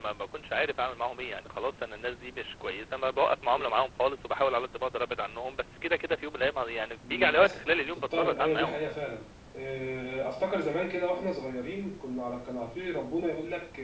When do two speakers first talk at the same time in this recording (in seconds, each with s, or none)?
7.0 s